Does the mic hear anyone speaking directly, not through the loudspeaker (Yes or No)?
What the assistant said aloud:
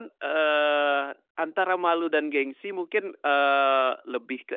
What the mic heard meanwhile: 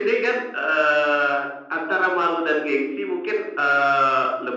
No